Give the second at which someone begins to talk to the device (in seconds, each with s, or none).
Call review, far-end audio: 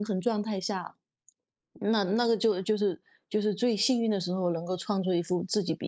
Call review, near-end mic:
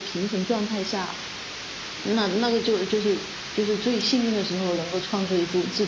none